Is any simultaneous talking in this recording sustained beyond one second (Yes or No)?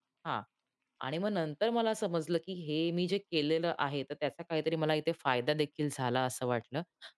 No